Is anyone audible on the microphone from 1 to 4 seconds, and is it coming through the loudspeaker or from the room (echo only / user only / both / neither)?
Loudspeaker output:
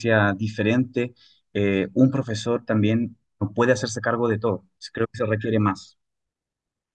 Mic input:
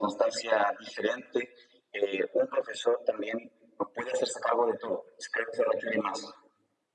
echo only